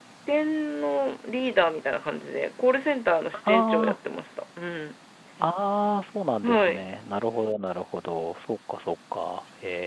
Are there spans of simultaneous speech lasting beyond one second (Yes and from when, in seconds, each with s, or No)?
No